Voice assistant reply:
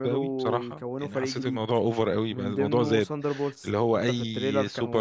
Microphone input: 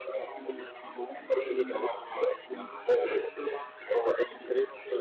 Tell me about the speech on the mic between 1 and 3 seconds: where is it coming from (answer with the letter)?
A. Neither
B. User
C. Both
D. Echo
D